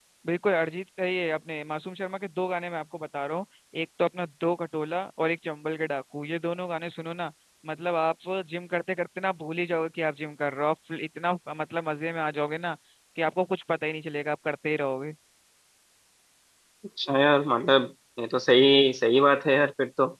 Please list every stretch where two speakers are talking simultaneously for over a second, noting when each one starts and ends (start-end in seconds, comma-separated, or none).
none